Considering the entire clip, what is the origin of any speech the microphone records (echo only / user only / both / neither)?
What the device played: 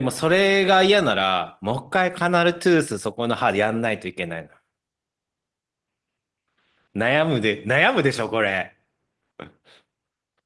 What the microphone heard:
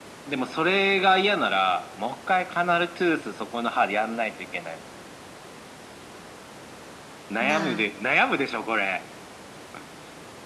both